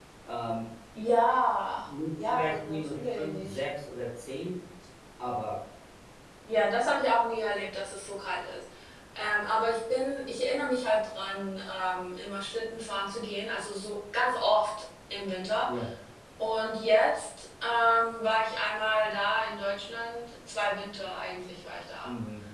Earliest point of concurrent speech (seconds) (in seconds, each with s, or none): 2.2 s